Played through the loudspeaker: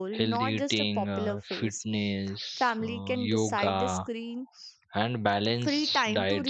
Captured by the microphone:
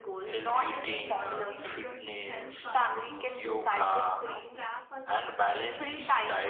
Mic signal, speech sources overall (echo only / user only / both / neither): both